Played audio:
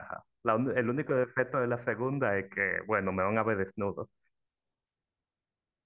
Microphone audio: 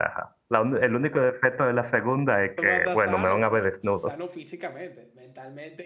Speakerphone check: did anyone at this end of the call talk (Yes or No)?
Yes